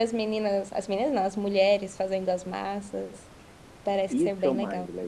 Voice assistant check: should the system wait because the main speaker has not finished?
No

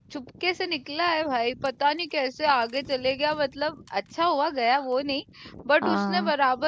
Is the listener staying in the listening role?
Yes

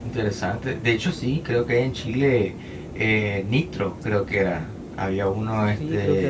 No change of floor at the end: No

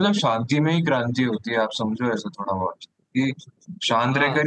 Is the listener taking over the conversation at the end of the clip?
No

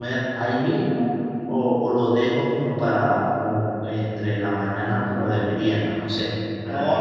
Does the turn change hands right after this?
Yes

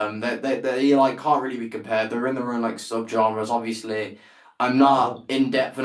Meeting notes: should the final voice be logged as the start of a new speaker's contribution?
No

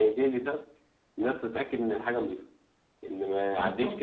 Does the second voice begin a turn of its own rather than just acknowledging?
No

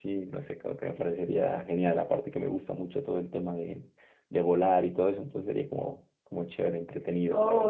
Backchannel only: No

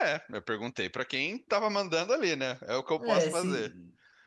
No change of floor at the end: No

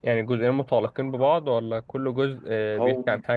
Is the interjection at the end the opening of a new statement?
Yes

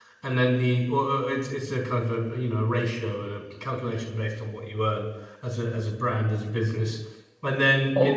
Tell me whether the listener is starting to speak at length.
Yes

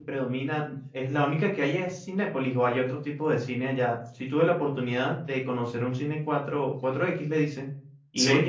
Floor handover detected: No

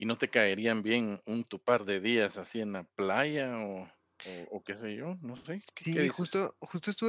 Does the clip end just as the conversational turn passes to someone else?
Yes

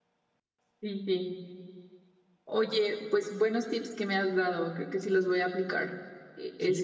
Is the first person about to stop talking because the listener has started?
Yes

